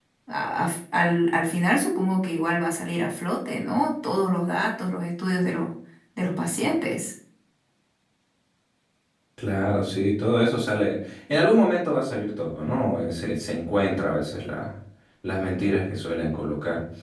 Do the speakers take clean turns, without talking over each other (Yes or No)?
Yes